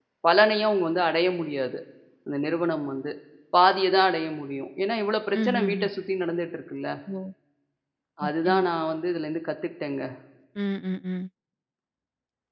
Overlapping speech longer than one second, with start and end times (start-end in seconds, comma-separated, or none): none